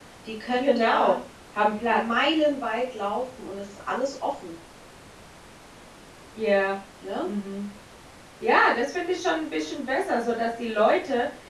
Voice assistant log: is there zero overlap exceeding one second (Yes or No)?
Yes